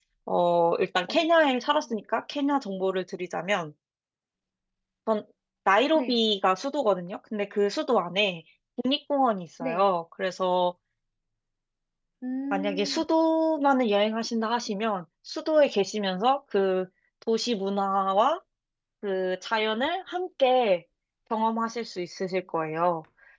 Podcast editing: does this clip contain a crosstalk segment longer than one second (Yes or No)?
No